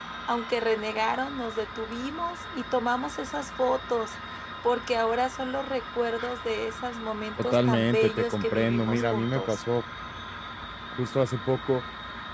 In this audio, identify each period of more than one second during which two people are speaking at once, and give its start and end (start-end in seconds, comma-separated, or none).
7.4-9.6